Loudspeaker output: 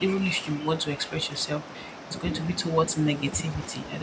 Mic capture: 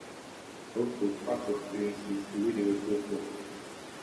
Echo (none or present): none